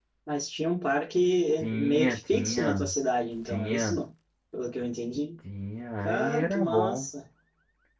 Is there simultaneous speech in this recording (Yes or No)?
Yes